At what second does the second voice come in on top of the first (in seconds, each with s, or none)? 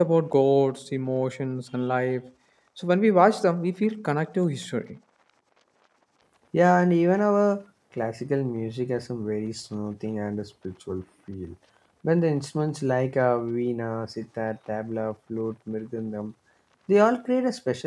none